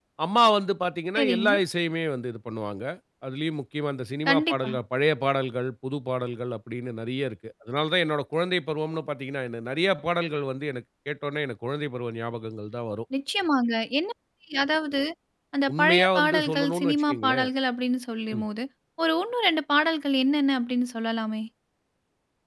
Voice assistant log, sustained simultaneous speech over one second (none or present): present